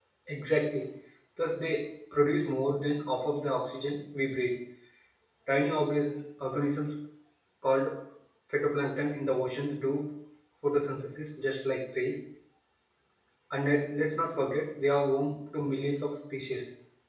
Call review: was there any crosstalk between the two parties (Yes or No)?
No